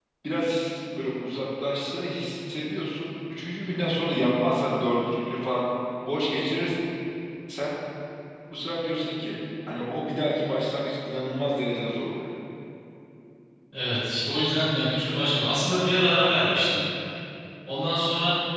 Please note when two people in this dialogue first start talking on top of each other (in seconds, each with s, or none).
none